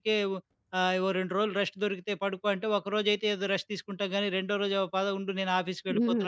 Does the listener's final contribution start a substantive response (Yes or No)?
Yes